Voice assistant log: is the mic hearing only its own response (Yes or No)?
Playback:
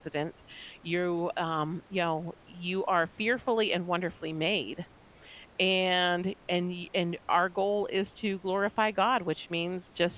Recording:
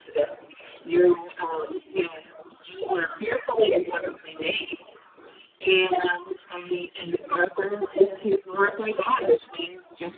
Yes